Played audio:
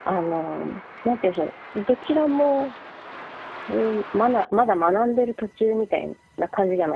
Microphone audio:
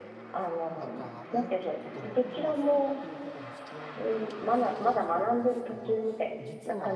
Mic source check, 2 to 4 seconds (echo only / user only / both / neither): both